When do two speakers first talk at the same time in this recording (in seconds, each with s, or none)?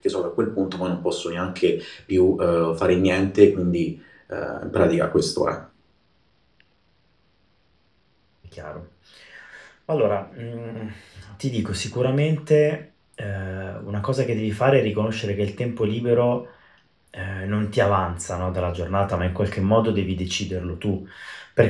none